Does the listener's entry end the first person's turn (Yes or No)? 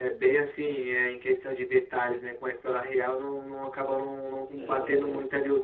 No